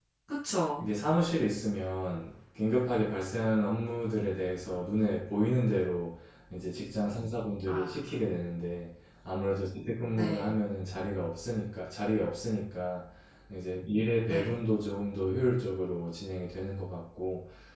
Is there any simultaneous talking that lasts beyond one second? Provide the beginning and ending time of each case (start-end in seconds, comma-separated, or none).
none